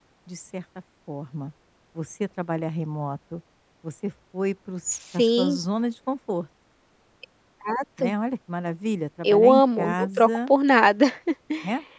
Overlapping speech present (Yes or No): Yes